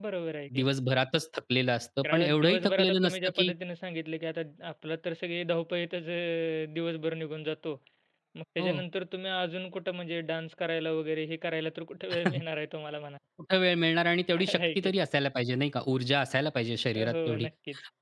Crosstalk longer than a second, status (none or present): present